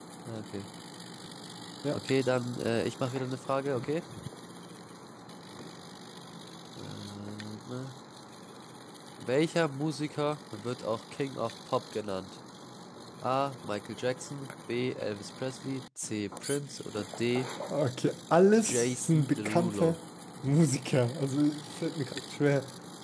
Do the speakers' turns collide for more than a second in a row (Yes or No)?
Yes